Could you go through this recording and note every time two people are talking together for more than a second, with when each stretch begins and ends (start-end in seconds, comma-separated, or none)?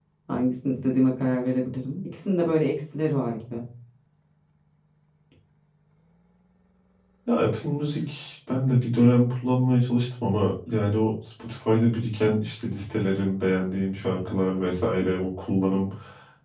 none